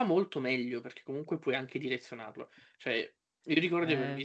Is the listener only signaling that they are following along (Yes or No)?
Yes